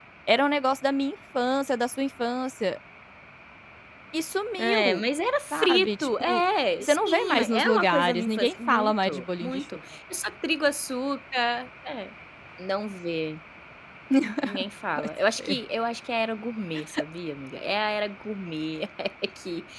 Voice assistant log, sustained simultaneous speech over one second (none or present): present